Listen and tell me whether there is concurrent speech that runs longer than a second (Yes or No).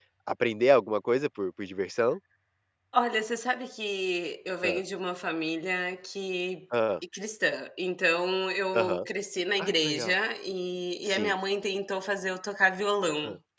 No